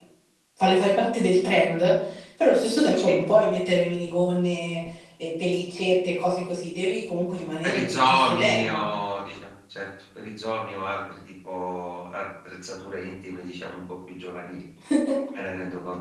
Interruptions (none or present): present